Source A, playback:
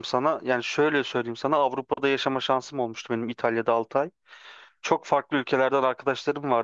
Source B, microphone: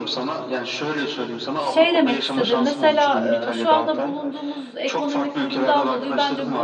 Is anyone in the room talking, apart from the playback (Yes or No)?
Yes